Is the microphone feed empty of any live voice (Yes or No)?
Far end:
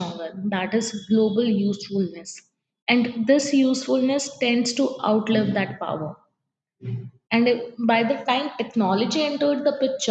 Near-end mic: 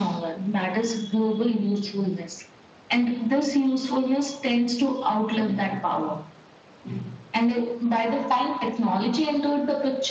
Yes